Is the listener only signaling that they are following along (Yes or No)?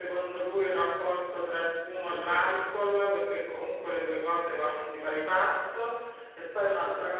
Yes